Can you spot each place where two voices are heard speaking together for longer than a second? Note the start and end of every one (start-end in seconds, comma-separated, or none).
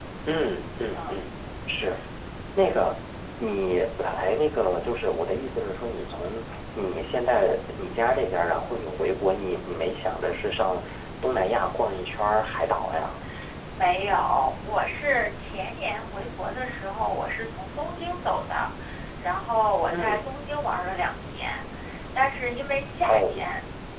none